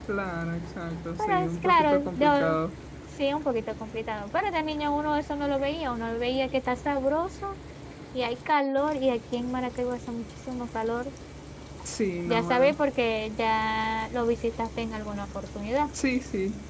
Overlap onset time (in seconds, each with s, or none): 1.2 s